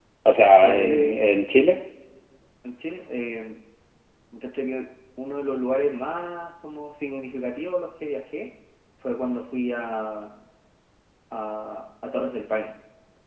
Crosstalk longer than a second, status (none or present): none